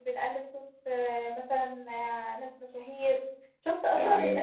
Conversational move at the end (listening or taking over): listening